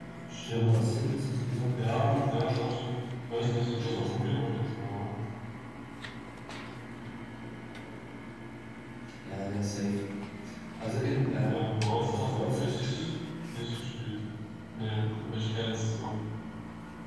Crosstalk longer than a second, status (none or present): present